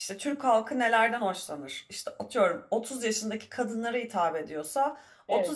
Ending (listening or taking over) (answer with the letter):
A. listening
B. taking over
A